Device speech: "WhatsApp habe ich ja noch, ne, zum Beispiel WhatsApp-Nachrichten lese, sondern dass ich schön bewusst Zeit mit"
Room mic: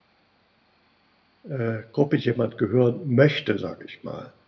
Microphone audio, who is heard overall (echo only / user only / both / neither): user only